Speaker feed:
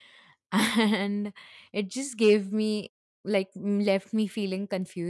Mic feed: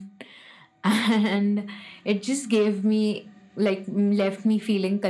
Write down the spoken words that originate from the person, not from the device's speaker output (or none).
none